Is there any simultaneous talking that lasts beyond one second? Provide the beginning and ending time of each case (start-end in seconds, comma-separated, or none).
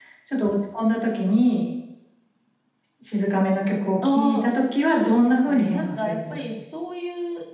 4.9-6.4